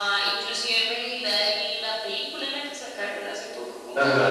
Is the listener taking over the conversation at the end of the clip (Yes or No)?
Yes